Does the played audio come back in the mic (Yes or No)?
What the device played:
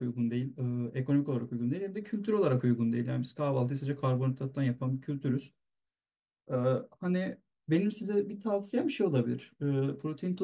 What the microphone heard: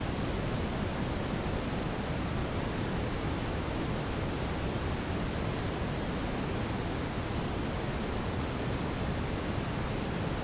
No